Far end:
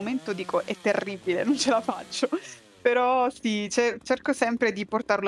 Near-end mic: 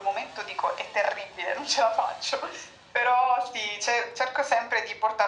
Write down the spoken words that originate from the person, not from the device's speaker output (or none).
none